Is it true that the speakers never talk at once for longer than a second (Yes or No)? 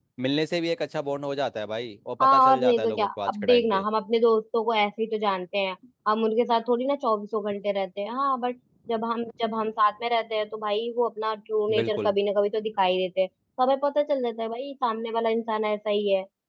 No